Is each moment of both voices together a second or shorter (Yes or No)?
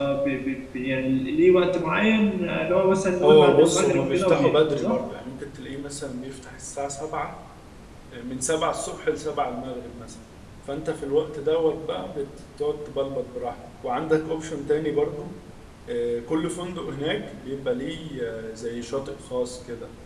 No